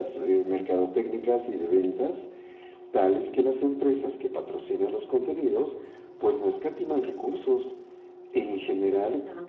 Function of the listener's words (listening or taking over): listening